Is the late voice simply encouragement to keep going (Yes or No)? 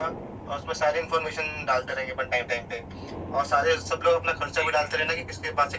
Yes